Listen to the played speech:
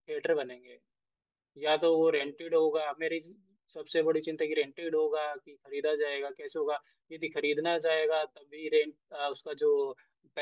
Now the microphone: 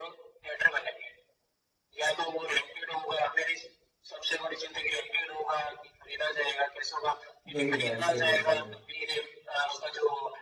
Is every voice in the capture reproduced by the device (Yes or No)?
No